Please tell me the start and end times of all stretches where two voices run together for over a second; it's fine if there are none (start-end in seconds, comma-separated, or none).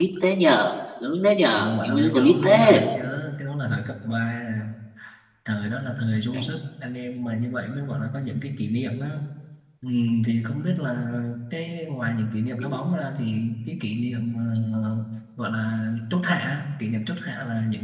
1.6-2.8